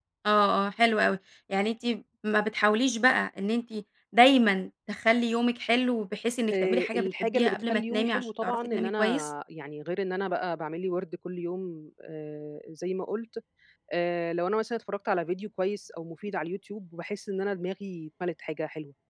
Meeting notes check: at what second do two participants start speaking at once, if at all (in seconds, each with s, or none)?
6.5 s